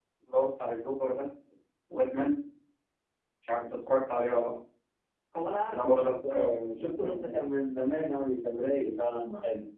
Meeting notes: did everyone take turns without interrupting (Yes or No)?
No